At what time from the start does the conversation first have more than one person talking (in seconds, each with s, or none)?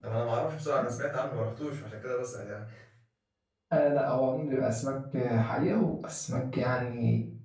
none